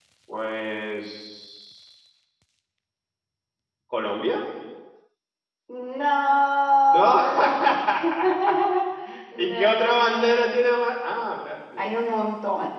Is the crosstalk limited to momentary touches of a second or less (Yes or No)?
No